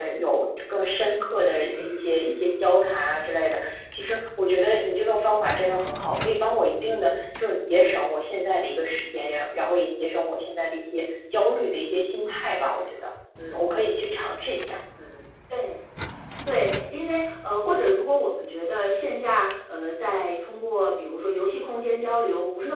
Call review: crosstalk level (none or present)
none